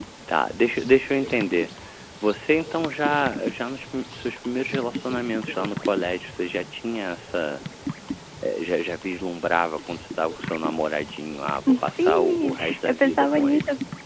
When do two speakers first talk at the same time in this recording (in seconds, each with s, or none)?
11.7 s